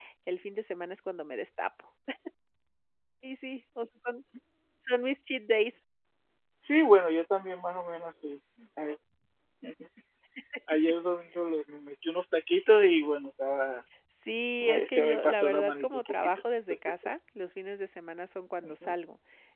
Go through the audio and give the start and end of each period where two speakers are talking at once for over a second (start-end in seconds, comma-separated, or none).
14.6-16.4